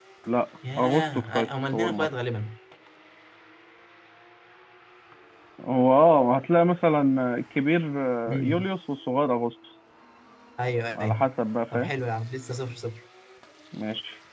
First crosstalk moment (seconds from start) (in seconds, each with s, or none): 0.8 s